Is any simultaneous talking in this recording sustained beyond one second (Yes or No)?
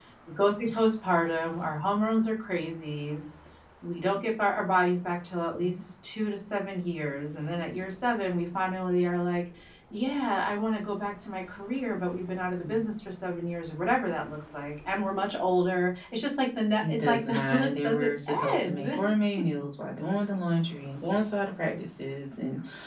Yes